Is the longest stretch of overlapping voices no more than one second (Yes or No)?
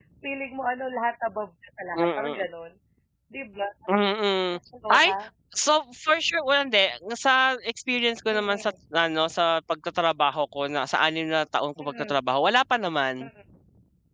Yes